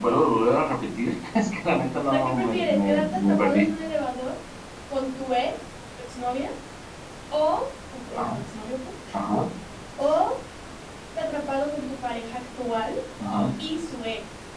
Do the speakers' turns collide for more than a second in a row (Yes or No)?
Yes